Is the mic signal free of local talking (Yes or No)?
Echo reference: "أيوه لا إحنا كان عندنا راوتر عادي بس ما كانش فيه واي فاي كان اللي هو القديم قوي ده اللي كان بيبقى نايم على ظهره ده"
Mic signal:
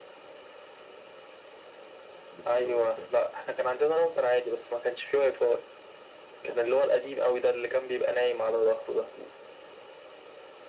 No